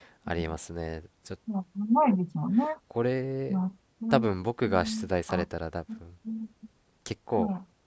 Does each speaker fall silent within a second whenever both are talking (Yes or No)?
Yes